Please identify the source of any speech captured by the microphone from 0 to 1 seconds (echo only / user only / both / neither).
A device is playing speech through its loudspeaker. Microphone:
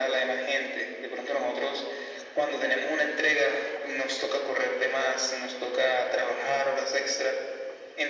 echo only